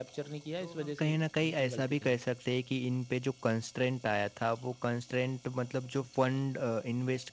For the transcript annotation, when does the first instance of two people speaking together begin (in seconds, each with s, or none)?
0.6 s